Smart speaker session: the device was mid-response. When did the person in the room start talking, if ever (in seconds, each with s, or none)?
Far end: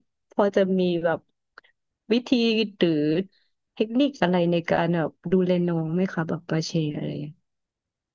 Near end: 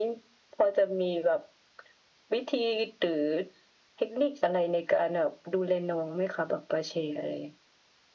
none